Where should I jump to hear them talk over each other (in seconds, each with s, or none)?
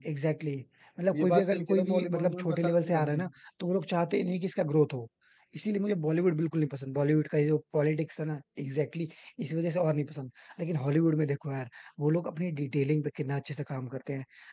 1.1 s